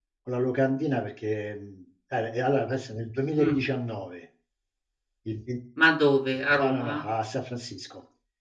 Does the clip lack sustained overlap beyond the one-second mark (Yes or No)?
Yes